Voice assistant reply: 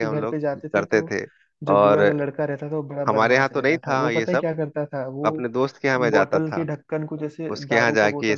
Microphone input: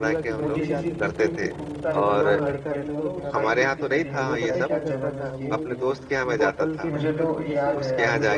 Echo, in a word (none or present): present